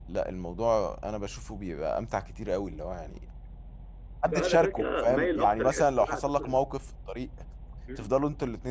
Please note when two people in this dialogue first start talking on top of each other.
4.3 s

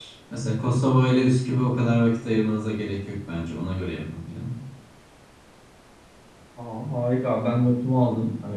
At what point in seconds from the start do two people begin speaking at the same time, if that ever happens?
none

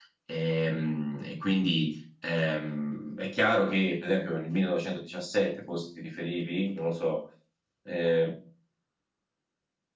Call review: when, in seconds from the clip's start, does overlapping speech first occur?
none

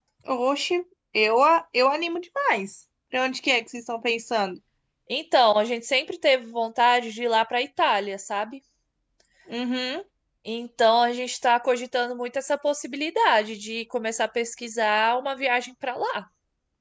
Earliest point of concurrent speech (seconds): none

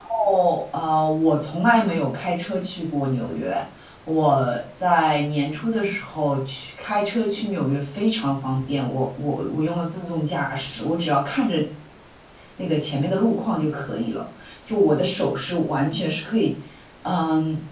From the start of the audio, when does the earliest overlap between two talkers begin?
none

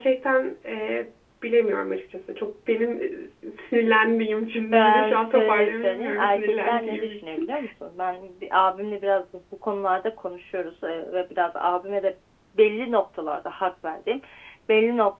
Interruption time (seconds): 4.7 s

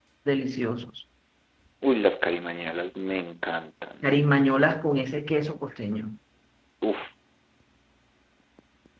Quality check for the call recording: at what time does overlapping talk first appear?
none

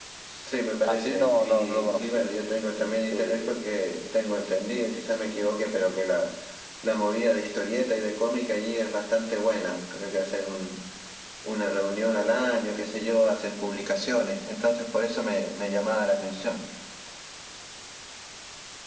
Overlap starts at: 0.8 s

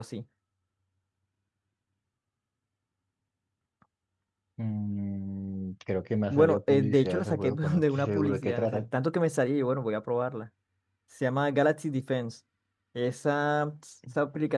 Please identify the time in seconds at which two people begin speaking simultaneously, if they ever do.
6.3 s

